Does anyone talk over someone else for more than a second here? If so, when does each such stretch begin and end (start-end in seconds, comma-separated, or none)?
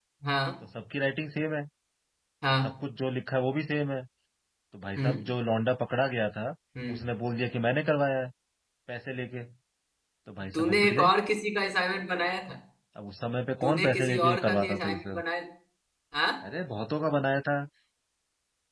13.6-15.2